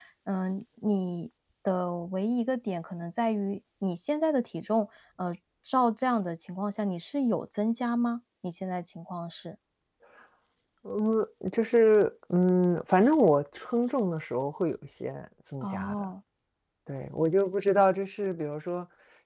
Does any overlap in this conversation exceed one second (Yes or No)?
No